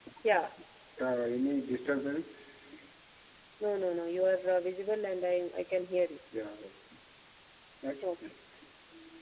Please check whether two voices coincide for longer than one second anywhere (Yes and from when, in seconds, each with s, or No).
No